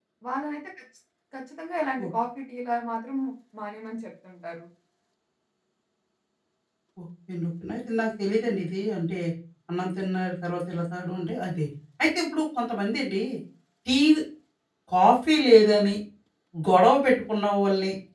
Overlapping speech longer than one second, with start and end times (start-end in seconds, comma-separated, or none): none